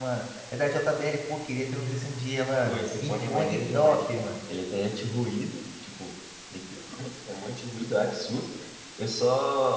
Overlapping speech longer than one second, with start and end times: 2.7-4.2

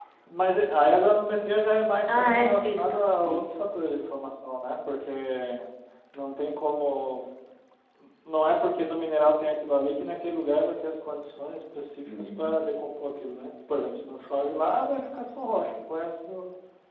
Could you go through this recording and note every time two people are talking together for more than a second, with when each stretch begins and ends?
2.1-3.4

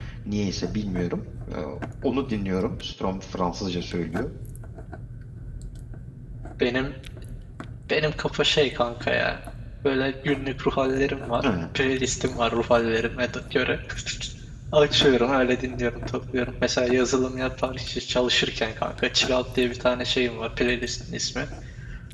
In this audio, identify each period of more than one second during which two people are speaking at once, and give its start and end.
none

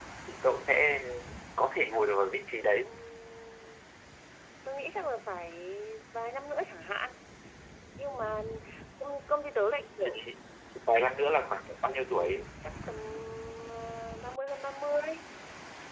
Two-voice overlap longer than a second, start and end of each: none

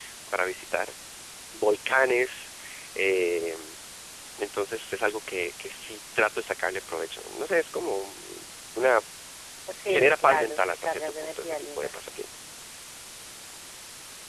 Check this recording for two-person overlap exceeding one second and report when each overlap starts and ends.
9.9-11.9

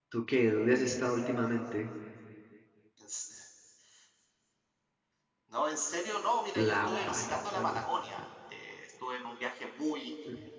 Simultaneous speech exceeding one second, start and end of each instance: 6.5-7.8

